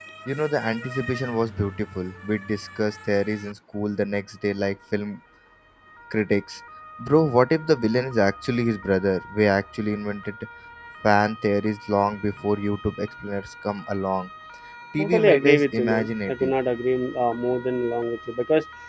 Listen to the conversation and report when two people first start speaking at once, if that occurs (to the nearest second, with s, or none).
15 s